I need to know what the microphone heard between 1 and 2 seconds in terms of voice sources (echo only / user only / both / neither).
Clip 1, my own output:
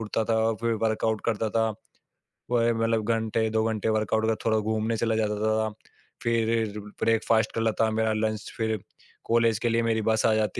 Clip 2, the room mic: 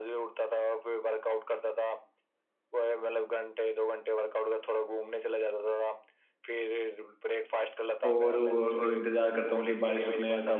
echo only